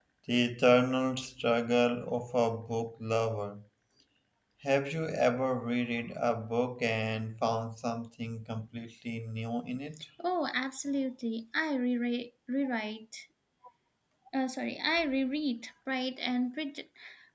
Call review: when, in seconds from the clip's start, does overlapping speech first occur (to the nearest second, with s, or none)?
none